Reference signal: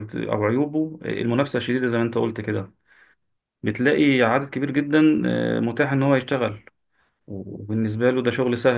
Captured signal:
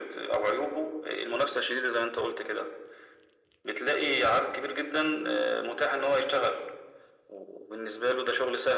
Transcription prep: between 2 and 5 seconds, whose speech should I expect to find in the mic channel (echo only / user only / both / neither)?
echo only